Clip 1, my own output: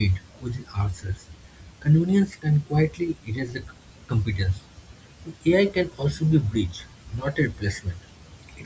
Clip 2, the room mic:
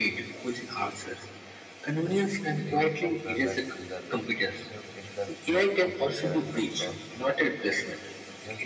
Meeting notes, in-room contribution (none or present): present